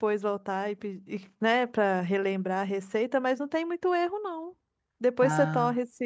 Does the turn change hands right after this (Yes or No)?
No